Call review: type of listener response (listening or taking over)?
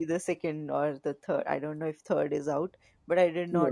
listening